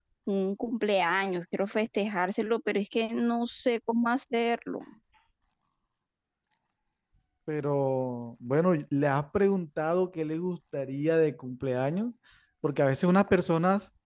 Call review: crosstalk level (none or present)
none